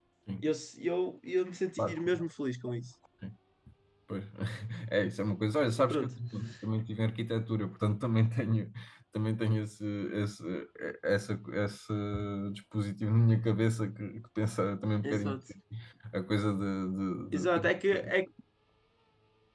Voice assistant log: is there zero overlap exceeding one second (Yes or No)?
Yes